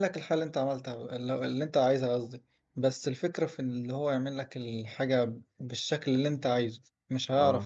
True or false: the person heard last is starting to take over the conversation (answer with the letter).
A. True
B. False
B